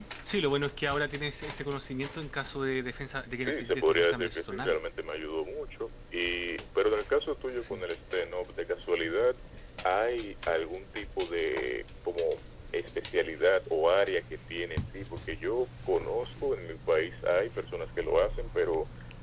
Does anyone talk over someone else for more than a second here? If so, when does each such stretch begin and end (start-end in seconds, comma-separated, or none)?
3.4-4.8